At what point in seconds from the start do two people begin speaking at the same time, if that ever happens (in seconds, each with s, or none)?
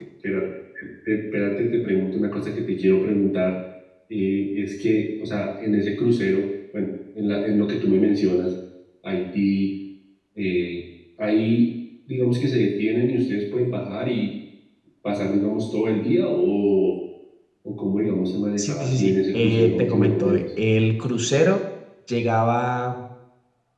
18.6 s